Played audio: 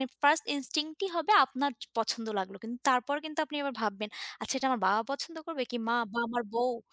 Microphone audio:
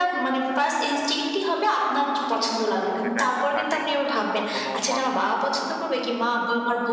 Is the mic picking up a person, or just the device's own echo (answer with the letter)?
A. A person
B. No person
A